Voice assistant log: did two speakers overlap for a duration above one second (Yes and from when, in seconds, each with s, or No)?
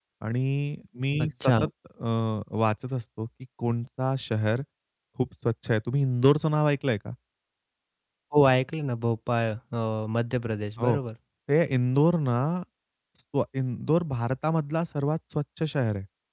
No